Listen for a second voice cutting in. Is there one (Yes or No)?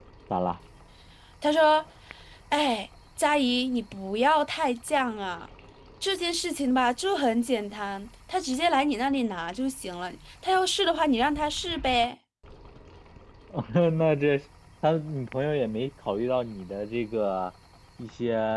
No